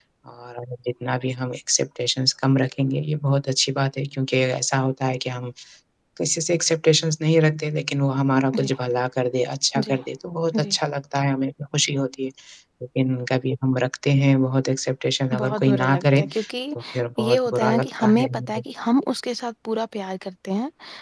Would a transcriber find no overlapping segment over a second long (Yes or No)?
No